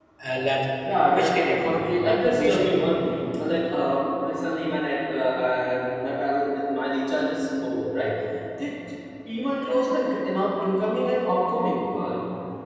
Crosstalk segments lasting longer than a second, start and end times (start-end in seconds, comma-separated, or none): 1.1-2.7